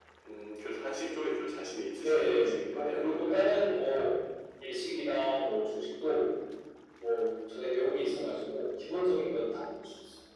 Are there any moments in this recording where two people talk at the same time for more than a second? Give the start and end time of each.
2.0-3.4

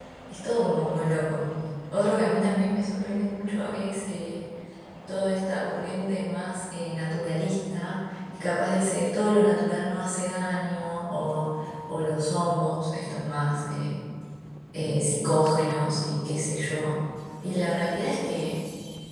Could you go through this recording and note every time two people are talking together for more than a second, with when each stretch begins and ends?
none

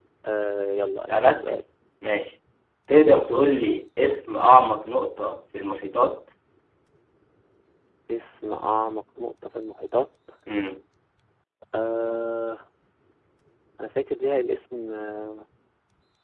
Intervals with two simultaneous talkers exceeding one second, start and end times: none

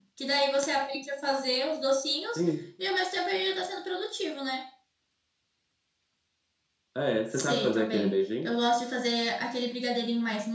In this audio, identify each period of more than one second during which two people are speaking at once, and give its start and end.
7.3-8.6

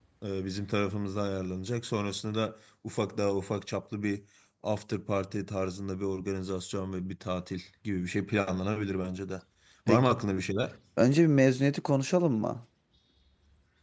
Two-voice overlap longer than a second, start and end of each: none

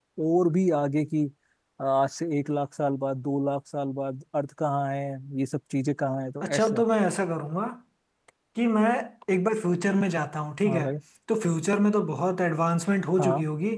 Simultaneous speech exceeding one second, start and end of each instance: none

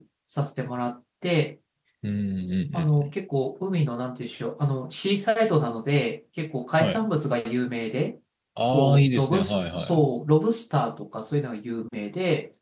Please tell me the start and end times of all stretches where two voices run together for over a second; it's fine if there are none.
8.7-10.0

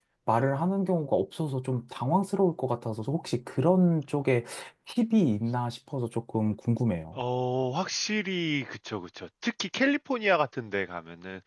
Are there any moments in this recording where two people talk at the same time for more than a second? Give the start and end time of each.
none

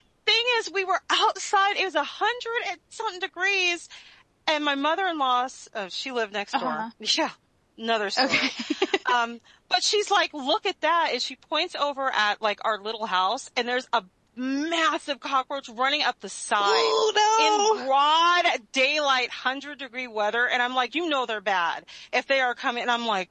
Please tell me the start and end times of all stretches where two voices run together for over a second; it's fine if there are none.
none

